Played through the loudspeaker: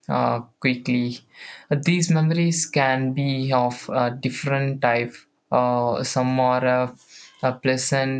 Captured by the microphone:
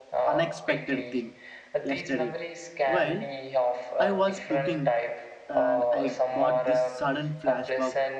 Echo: present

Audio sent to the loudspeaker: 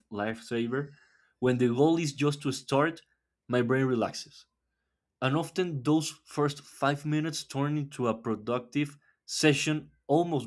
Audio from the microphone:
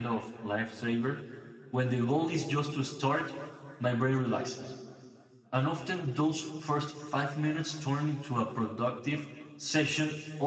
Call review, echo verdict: present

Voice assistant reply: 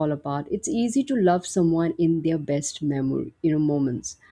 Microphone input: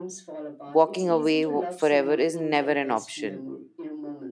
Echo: present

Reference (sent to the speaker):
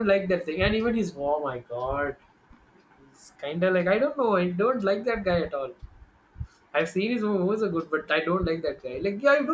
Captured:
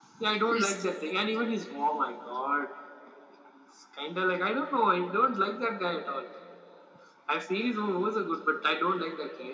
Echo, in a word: present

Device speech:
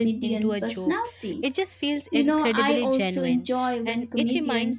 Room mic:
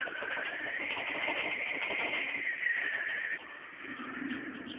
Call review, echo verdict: none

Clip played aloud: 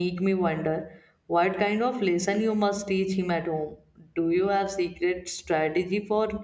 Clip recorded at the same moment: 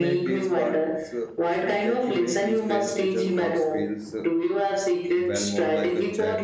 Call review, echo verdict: present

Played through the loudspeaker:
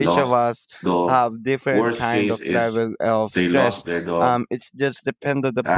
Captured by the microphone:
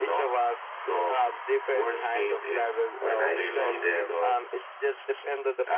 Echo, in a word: present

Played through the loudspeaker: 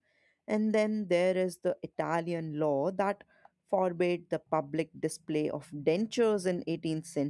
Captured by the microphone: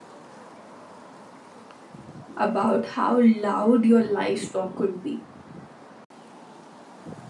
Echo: none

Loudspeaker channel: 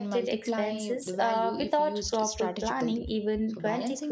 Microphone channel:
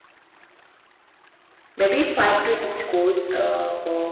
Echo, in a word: none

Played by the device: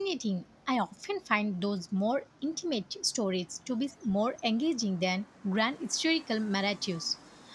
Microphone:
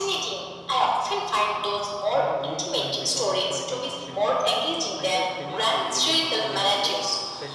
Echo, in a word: present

